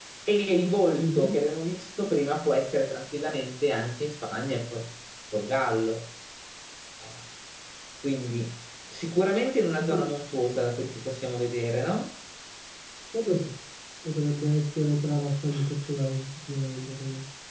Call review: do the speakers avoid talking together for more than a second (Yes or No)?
Yes